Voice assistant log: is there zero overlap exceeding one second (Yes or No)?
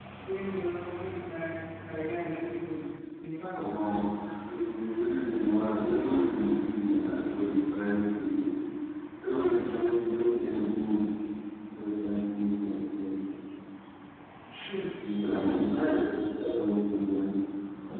Yes